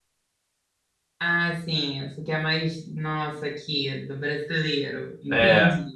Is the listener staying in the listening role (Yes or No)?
No